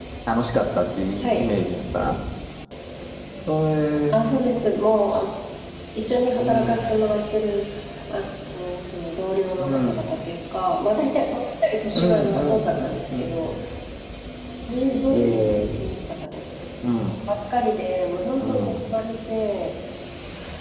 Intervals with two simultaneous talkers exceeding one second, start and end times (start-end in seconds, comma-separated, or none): 11.9-13.5